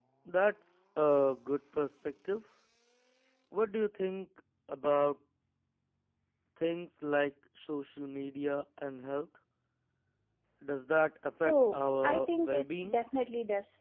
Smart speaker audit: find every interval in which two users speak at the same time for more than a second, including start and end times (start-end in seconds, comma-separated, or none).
11.4-13.0